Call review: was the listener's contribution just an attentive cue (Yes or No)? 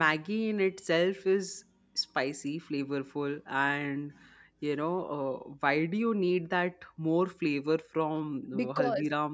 No